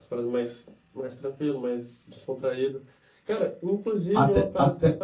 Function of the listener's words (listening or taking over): listening